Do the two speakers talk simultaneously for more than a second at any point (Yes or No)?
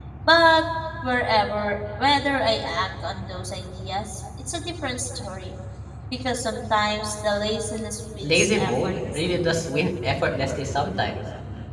Yes